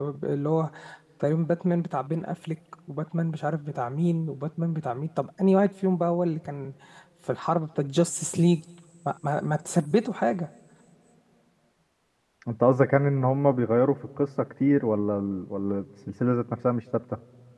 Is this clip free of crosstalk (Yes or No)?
Yes